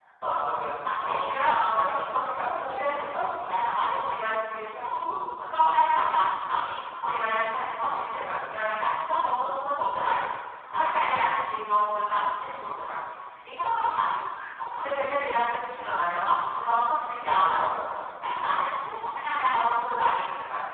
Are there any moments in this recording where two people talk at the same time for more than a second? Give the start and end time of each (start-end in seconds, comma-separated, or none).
1.0-3.5